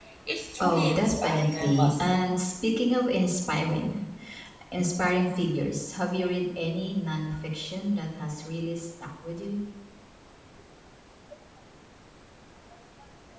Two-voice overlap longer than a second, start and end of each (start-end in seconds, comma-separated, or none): 0.6-2.2